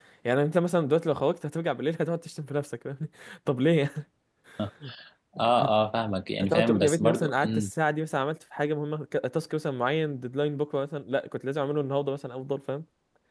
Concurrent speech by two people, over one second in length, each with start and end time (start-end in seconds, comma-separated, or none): 6.4-7.7